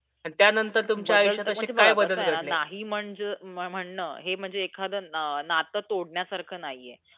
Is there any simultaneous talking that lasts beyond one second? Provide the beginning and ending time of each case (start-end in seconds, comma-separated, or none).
1.1-2.6